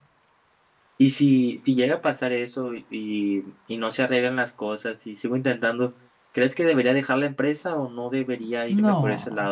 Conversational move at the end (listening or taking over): taking over